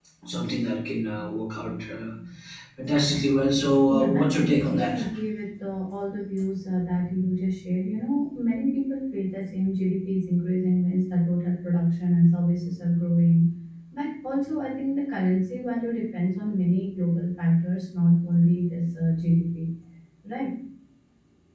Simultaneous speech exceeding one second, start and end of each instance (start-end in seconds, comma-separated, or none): 3.9-5.1